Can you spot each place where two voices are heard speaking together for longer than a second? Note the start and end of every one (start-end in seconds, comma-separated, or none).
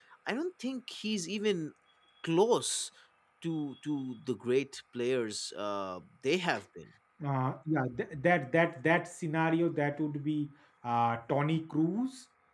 none